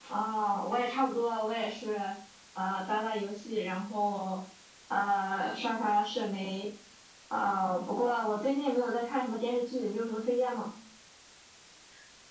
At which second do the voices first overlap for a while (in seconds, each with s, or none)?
none